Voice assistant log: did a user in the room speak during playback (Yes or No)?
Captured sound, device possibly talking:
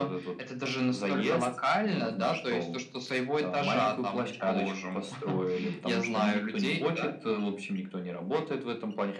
No